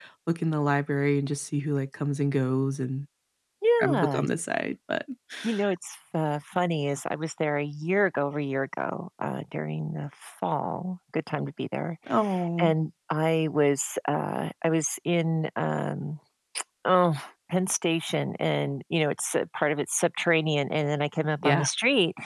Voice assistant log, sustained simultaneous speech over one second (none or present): none